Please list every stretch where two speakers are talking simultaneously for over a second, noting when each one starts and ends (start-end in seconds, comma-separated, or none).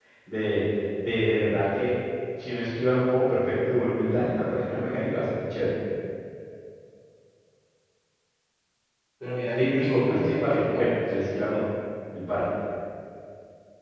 9.6-10.9